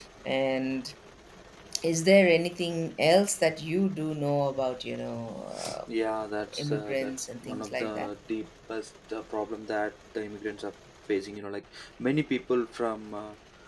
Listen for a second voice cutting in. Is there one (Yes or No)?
Yes